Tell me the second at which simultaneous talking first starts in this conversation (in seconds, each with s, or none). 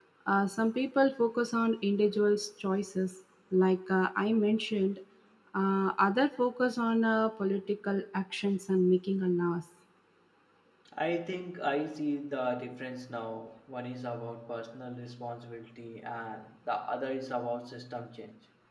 none